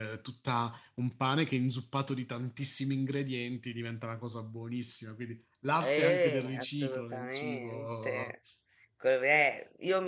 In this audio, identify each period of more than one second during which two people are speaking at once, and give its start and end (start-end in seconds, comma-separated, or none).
5.8-8.3